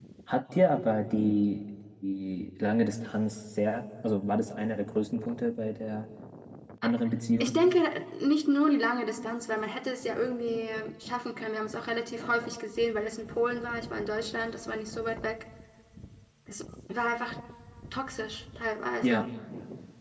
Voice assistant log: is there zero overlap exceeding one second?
Yes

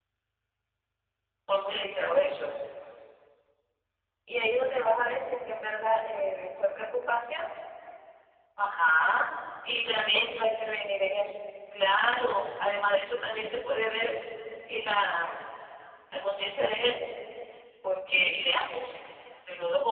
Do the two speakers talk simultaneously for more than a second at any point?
No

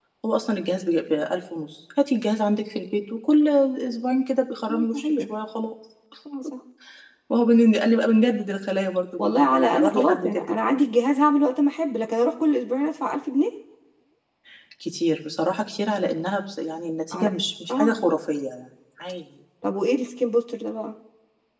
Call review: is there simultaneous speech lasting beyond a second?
Yes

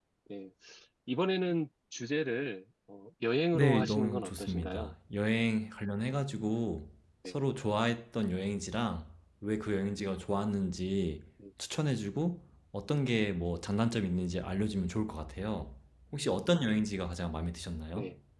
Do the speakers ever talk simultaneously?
Yes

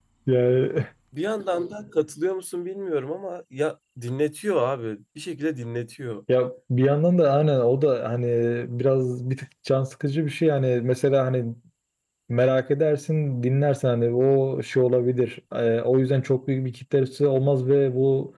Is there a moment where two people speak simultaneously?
No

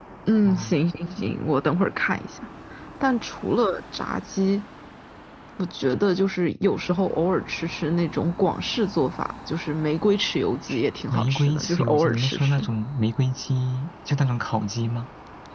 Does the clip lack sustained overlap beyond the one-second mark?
No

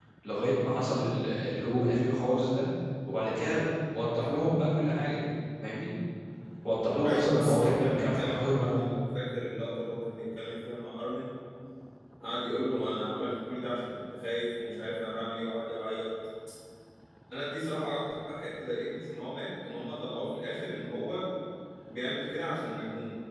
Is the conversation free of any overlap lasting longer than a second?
No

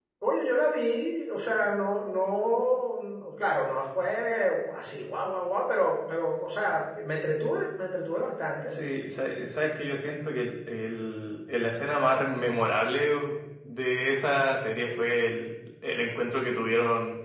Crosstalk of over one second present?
No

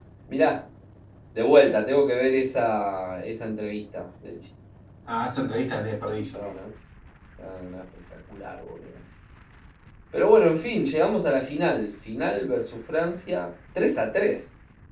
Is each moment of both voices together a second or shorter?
Yes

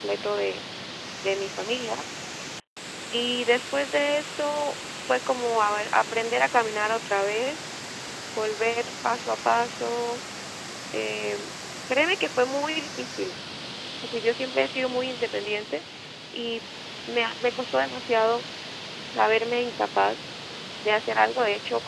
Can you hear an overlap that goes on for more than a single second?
No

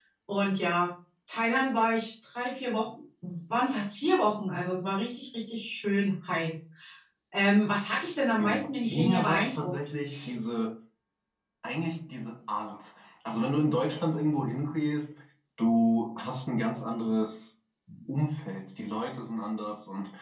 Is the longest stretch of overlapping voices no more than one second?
No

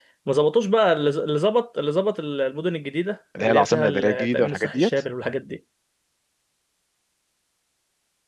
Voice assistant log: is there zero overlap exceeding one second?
No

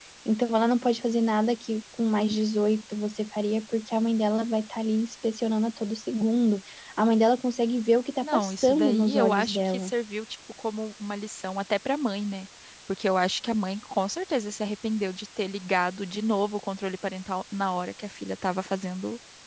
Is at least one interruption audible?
Yes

